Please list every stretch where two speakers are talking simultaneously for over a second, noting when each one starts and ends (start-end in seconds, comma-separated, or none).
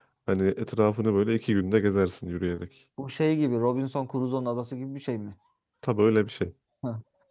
none